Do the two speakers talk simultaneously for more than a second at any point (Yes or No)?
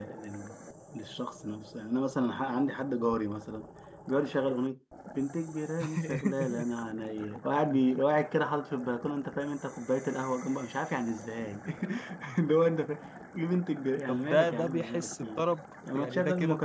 Yes